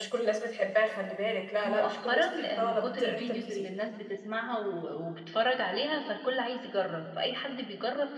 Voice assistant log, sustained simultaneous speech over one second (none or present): present